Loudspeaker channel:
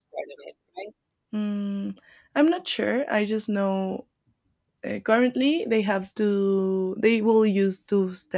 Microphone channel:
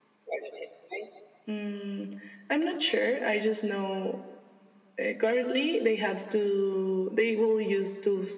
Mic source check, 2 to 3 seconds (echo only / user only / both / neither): echo only